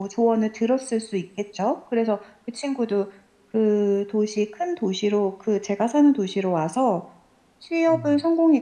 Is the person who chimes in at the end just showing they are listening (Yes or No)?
Yes